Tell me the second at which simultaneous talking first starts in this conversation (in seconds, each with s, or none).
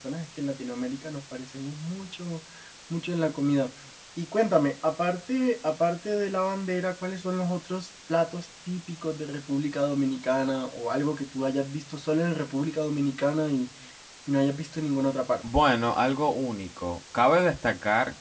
none